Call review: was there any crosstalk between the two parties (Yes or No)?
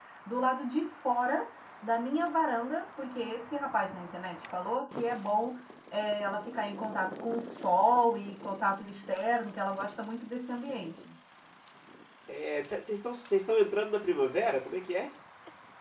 No